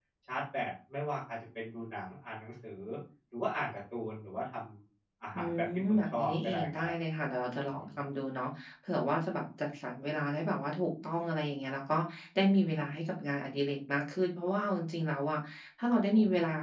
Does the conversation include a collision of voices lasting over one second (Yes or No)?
Yes